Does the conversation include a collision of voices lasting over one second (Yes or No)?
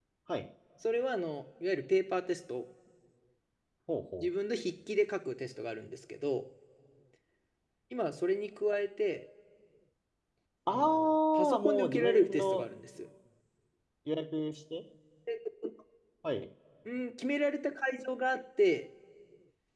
Yes